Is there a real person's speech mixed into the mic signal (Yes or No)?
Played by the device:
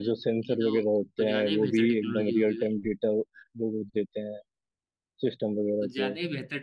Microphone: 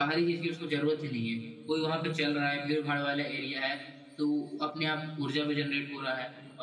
Yes